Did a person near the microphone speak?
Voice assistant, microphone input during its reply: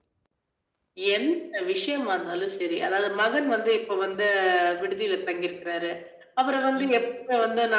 Yes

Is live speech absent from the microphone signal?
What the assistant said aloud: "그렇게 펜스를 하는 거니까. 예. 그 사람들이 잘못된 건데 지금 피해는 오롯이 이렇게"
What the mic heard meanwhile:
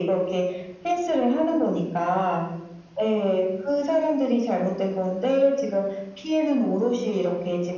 Yes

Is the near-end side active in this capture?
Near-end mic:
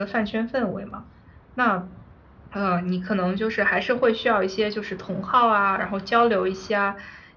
No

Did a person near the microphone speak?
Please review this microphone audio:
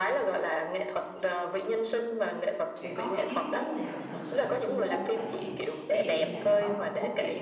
Yes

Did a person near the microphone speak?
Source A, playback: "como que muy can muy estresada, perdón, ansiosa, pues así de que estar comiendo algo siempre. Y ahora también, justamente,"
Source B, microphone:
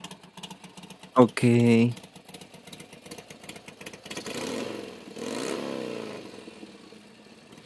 Yes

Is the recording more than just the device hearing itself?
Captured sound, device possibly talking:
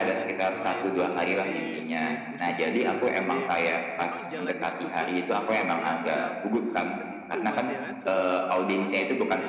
Yes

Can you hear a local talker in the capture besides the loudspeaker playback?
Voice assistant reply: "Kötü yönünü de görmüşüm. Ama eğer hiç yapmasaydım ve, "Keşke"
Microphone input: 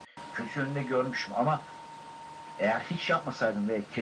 No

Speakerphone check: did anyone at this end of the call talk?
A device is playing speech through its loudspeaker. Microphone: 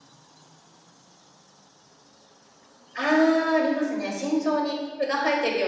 Yes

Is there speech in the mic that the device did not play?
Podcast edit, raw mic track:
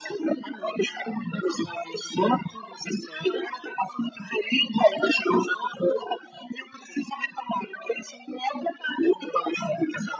No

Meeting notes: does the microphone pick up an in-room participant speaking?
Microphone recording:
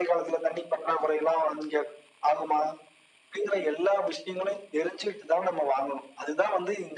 No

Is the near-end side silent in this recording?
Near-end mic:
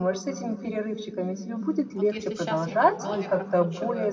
No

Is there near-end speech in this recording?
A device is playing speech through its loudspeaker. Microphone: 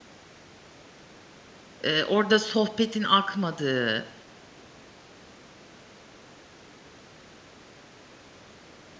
Yes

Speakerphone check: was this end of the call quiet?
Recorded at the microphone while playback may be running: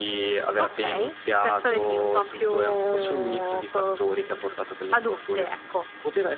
Yes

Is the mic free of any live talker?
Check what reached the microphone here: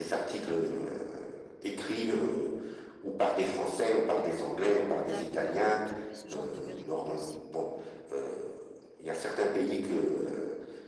No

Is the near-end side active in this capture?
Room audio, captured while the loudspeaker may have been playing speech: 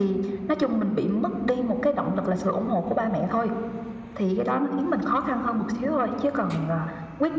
No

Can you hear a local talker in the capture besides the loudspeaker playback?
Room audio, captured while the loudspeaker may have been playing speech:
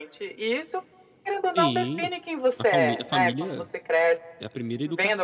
Yes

